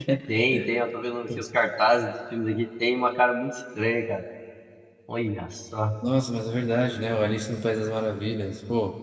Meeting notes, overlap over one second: none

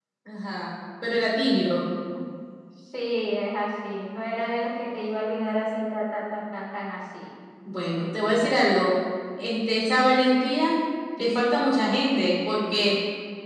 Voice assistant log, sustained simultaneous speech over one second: none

